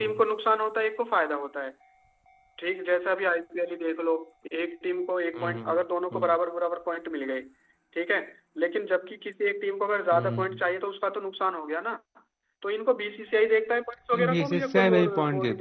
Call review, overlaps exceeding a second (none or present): present